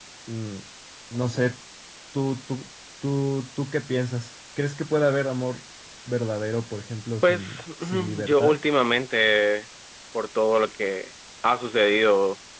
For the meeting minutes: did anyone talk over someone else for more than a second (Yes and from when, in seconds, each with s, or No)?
Yes, from 7.2 s